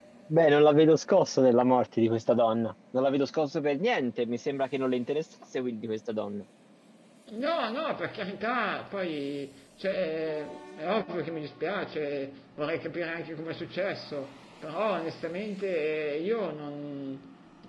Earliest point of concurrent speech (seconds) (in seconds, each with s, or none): none